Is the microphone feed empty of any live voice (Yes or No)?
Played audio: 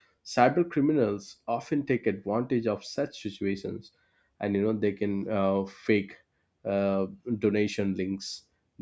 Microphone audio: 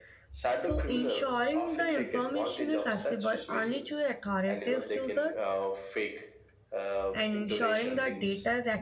No